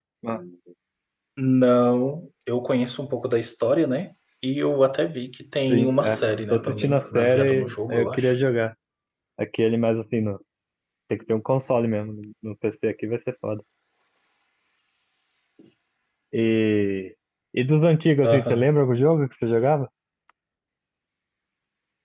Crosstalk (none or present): present